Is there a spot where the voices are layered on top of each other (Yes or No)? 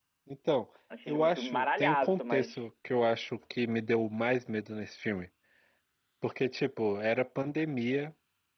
Yes